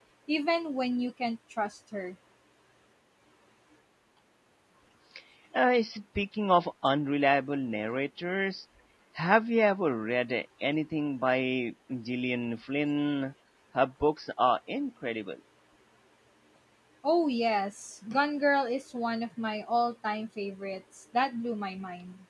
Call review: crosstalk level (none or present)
none